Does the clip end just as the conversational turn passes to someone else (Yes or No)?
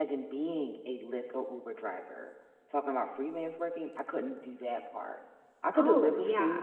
No